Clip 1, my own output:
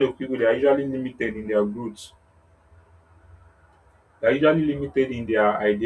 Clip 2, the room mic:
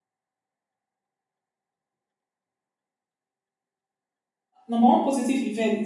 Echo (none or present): none